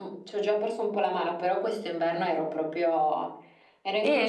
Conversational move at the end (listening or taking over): taking over